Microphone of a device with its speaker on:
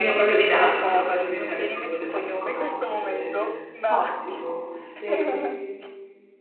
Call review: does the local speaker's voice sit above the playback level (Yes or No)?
Yes